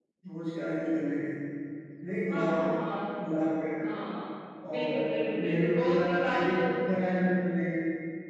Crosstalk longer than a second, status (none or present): present